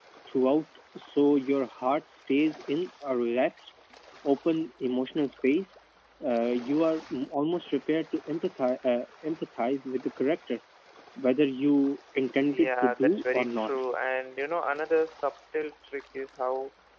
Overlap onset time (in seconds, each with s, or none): 12.5 s